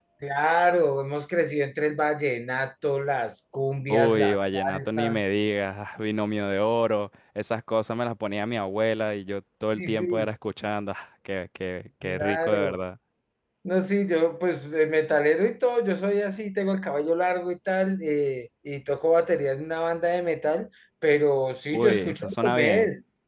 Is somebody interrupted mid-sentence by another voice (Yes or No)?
Yes